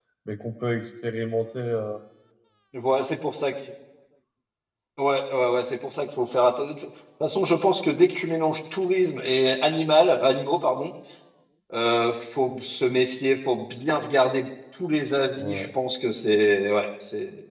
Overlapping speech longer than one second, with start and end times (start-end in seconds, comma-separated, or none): none